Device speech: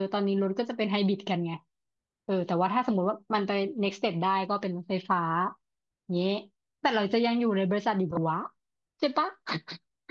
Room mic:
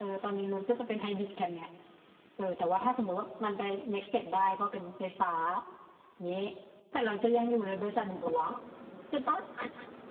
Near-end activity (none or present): none